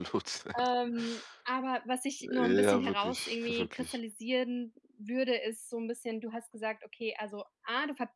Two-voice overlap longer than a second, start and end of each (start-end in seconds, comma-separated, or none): 2.5-4.0